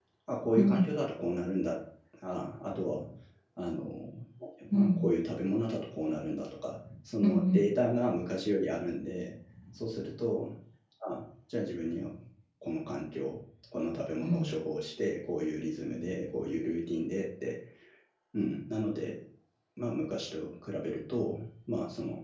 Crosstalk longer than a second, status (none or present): none